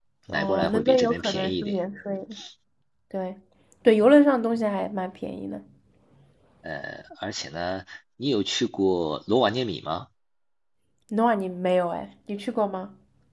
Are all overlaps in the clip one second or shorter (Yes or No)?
No